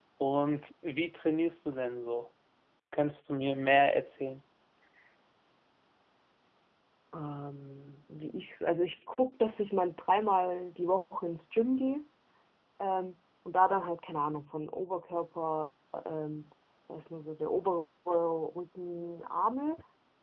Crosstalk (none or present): none